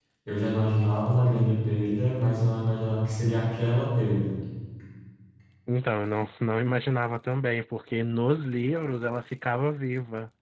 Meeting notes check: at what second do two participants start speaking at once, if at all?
none

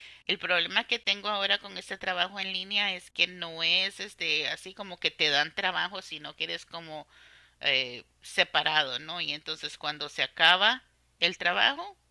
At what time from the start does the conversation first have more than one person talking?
none

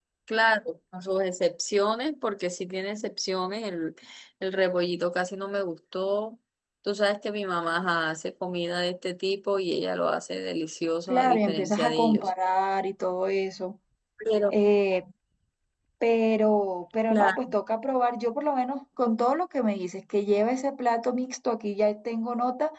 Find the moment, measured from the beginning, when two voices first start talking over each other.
11.1 s

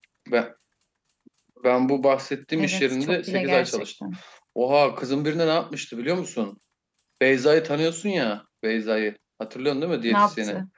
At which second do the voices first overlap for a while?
2.6 s

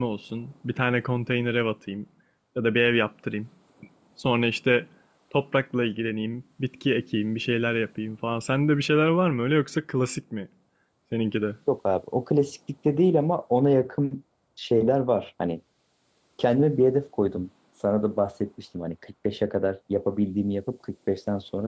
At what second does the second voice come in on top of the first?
none

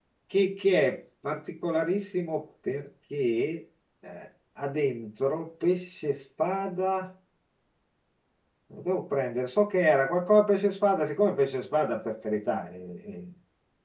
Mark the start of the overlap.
none

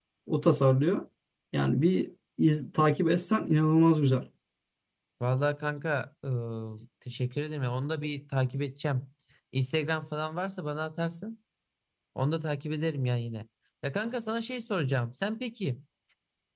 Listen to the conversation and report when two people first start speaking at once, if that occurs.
none

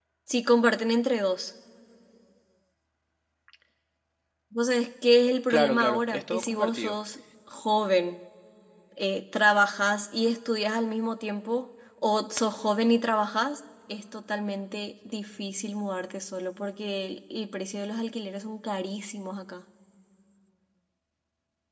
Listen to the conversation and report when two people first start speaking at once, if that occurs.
5.5 s

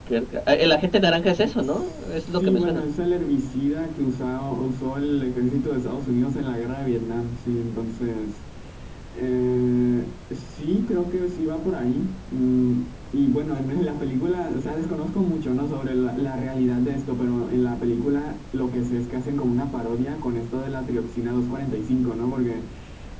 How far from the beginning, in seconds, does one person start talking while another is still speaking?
1.6 s

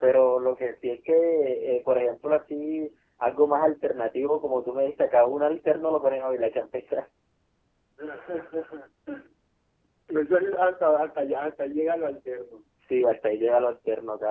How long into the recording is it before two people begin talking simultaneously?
none

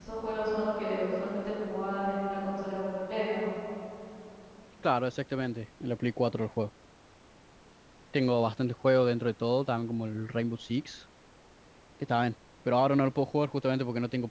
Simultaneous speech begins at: none

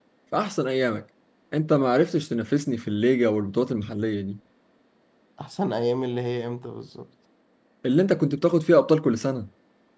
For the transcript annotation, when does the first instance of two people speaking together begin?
none

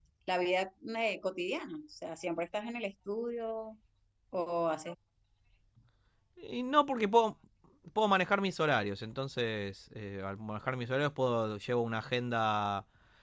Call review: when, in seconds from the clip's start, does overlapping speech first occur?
none

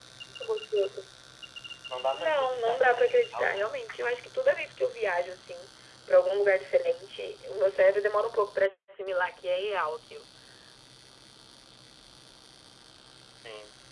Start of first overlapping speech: 2.1 s

